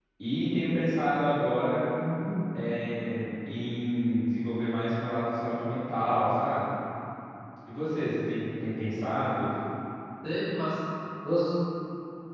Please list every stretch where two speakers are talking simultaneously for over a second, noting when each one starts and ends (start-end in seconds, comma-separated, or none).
none